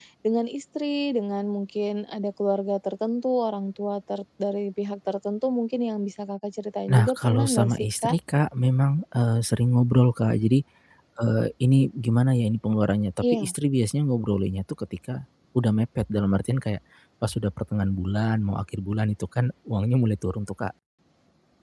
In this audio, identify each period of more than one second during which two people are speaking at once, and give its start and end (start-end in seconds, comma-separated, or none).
6.9-8.2